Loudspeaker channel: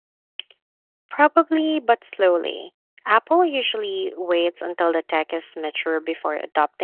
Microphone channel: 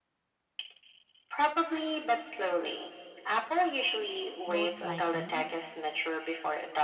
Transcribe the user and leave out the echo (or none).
Most likely.